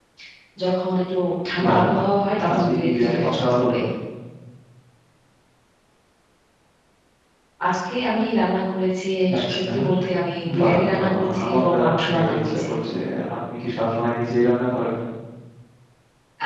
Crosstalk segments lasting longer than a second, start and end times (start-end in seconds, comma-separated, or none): 2.5-3.8, 10.6-12.7